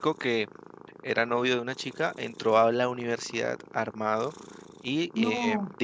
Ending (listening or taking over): listening